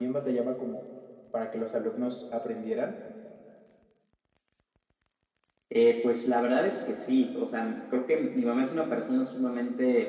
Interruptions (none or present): none